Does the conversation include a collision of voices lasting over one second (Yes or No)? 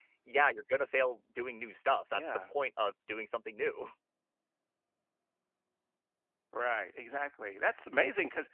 No